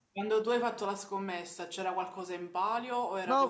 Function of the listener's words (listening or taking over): taking over